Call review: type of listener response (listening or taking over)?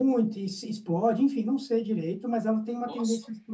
listening